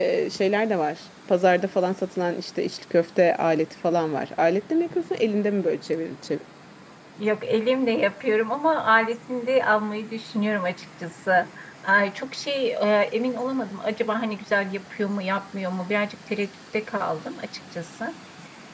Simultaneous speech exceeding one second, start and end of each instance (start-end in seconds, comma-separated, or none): none